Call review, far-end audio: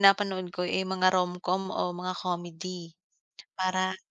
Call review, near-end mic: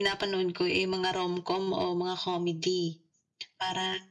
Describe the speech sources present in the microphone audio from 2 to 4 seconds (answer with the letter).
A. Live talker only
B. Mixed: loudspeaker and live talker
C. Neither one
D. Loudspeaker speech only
D